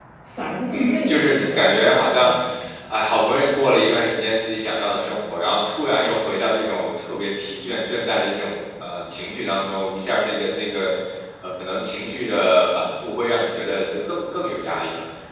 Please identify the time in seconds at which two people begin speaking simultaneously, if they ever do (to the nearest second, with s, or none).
1 s